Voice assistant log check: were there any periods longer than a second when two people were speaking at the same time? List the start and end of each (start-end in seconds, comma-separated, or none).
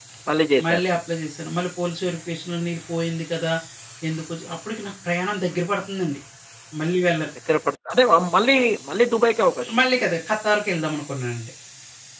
none